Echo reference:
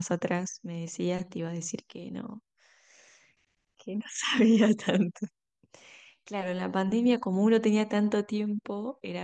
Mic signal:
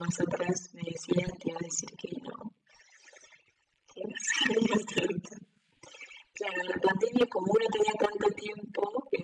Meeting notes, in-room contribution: none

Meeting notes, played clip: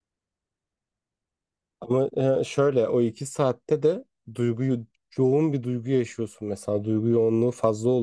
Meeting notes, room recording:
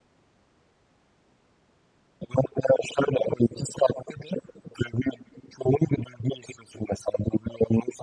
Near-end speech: none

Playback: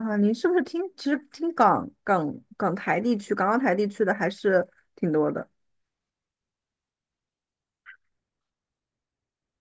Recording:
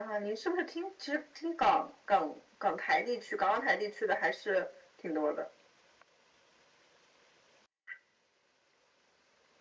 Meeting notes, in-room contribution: none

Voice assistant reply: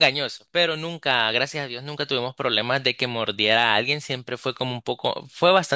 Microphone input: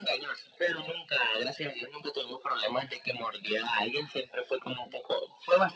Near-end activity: none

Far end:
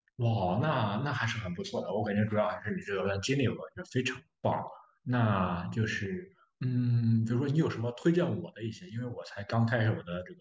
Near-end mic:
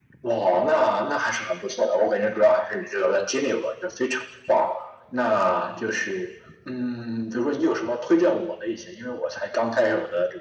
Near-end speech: none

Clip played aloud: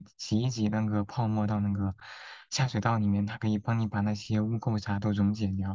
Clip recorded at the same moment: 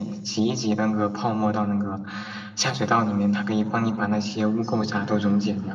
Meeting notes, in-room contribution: present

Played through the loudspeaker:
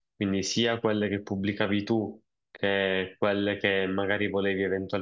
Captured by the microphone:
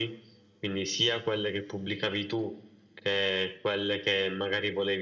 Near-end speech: none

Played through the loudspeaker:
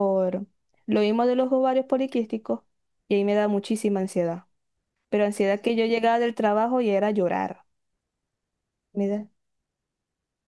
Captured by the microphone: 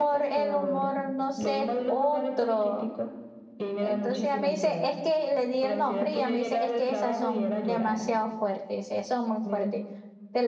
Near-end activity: present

